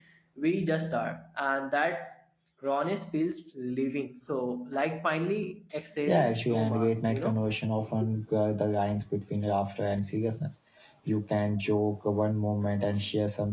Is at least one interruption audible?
Yes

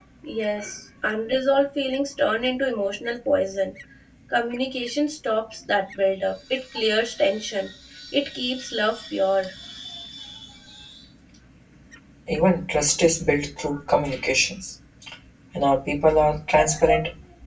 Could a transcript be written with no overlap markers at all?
Yes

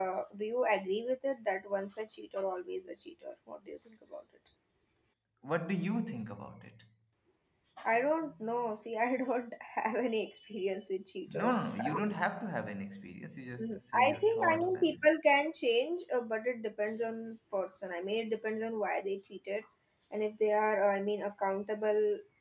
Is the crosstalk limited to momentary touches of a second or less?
No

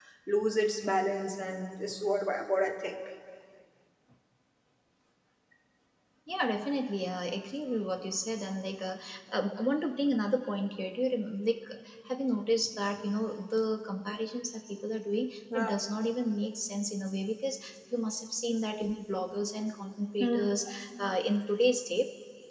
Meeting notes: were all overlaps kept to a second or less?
Yes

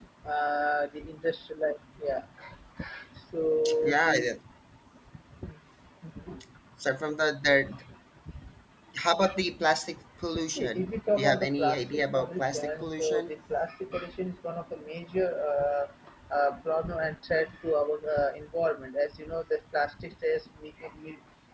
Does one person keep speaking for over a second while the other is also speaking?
Yes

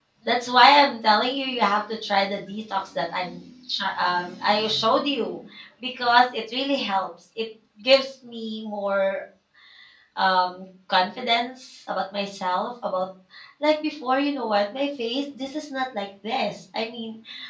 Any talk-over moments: No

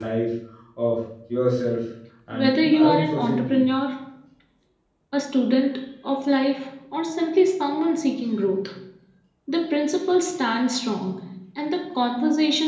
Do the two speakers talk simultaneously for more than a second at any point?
Yes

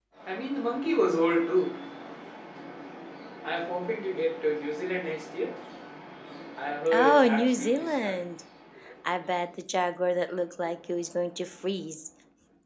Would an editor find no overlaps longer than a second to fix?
No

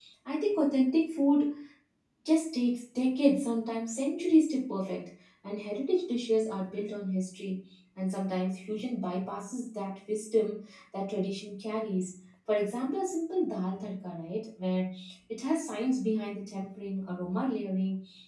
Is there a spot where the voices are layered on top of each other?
No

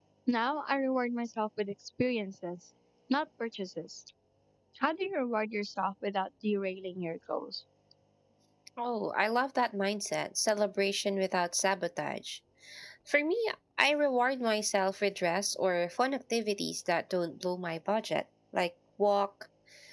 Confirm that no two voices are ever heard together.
Yes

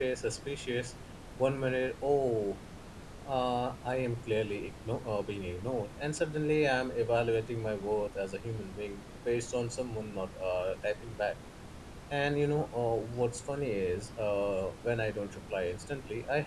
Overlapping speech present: No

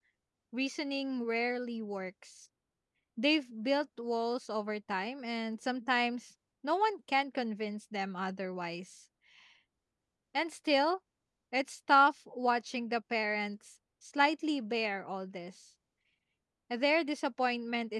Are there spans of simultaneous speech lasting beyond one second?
No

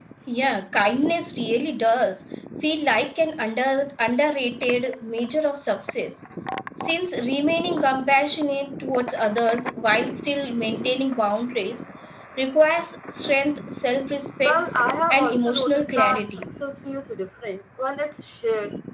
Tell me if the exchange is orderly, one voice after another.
No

